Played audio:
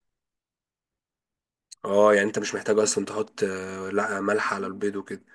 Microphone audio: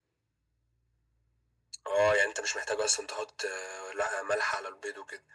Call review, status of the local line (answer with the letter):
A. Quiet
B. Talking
A